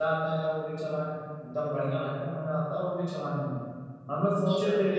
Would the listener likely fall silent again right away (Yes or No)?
Yes